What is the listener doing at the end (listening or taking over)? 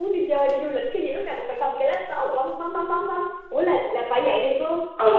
taking over